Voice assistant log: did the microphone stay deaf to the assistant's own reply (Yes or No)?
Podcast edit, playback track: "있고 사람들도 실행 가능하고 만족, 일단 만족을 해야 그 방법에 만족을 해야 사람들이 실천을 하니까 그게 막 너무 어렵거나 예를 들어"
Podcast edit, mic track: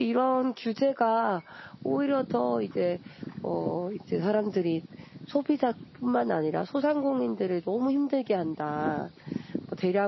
Yes